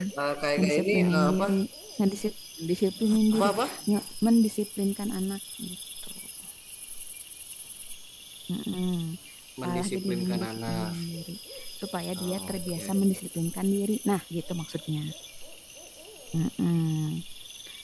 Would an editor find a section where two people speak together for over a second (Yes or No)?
Yes